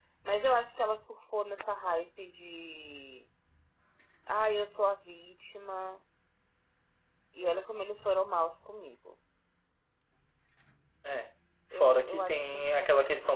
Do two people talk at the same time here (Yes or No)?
Yes